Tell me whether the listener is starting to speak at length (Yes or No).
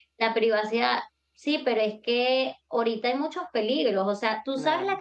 No